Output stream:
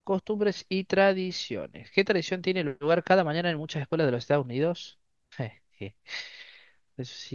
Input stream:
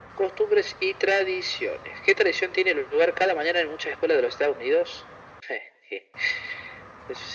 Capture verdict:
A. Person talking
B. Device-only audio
B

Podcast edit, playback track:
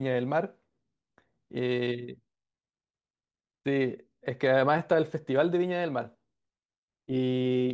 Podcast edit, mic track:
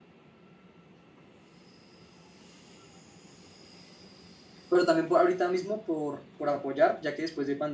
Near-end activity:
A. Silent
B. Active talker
B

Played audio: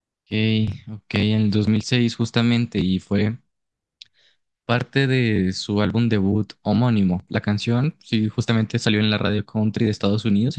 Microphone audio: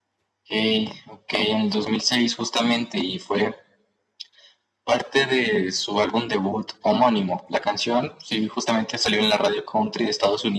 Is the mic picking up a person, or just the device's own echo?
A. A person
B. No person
B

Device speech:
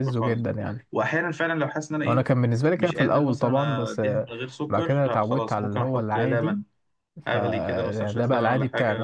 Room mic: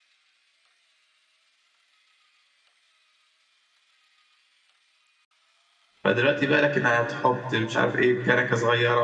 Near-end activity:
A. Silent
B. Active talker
B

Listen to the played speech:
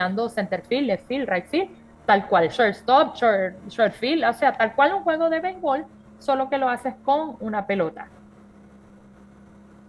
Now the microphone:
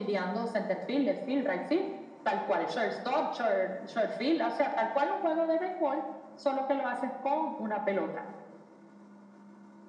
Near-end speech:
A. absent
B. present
A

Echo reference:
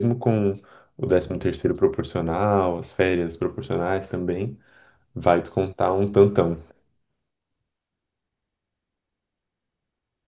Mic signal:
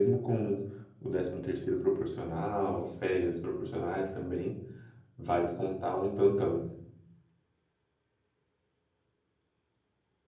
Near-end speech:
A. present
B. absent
B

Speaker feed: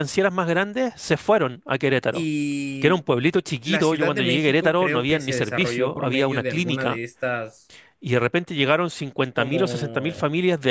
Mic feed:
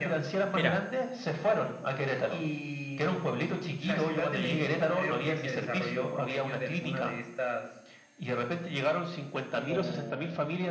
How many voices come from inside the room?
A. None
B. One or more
B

